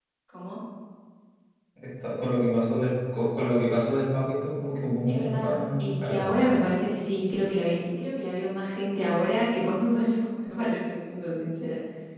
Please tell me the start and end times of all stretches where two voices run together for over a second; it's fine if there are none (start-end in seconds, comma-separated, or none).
5.1-6.3